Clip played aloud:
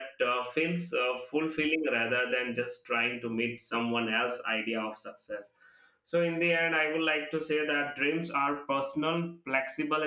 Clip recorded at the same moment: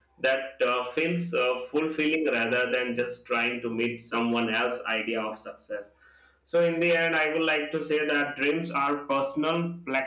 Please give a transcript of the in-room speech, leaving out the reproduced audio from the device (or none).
none